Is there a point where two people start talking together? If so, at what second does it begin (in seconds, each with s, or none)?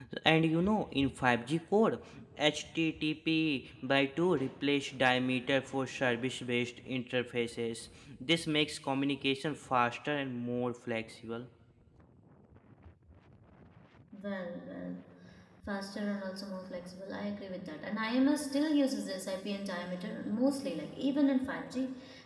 none